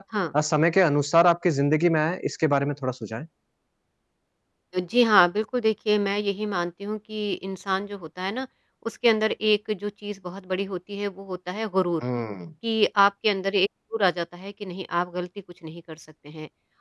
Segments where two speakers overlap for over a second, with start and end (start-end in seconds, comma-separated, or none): none